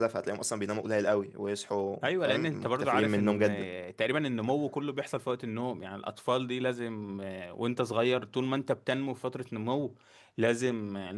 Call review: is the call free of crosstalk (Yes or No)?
No